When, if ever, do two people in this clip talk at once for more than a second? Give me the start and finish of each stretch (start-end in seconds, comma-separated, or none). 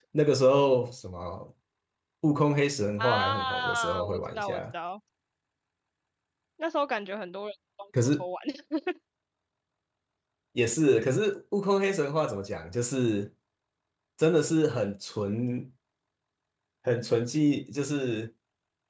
3.0-4.6